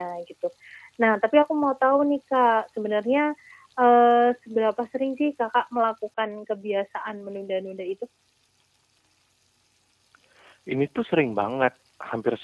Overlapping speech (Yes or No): No